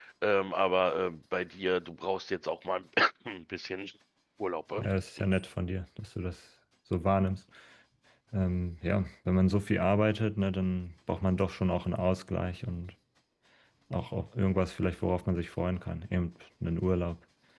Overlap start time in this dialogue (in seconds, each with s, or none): none